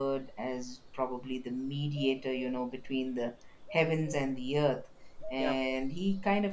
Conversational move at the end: listening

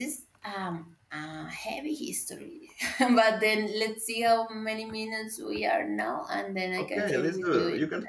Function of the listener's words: taking over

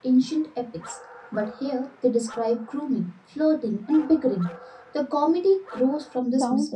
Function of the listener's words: taking over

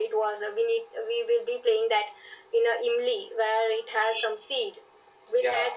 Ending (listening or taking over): listening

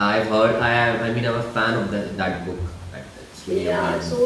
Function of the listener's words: taking over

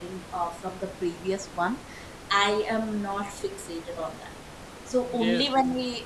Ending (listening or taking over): listening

